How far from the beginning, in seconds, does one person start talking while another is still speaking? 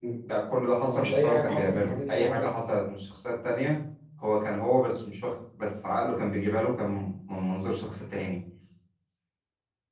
0.8 s

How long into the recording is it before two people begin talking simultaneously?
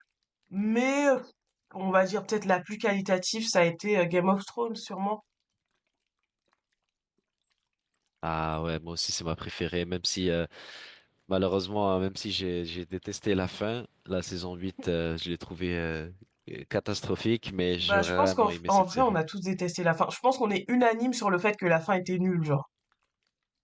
17.8 s

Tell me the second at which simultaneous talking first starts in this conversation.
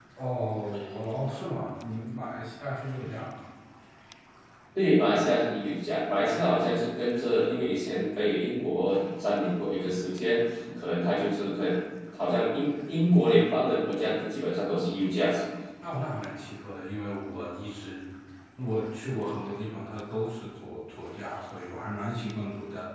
none

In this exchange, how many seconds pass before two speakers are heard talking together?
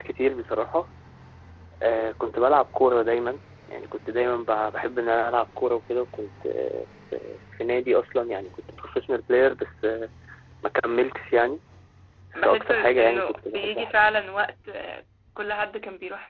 12.4 s

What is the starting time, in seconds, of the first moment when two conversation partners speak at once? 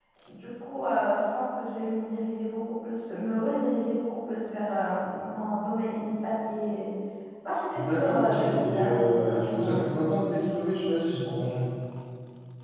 7.8 s

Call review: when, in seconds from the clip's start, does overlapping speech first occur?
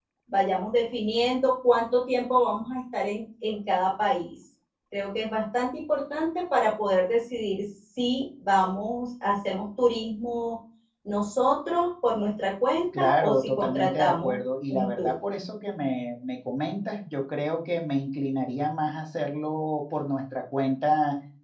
12.9 s

